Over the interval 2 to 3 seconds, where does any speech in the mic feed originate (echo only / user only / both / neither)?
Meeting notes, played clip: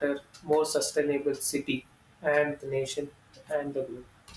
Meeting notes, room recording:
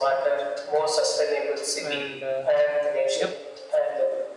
both